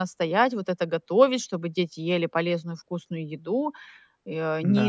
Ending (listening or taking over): listening